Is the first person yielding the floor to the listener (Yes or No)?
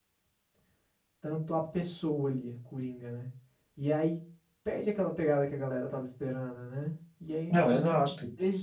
No